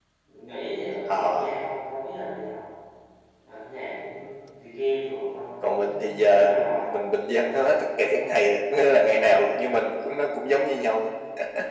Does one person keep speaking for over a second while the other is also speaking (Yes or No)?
Yes